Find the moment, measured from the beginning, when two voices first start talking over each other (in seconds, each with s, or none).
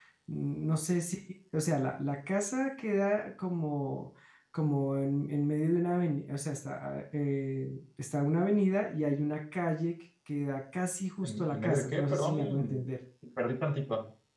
11.2 s